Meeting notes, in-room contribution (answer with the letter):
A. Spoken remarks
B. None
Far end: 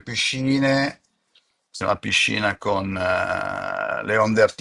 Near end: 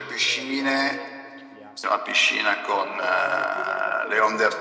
A